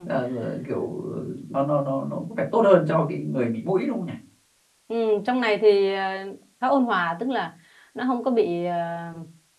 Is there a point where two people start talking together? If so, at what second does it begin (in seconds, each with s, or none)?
none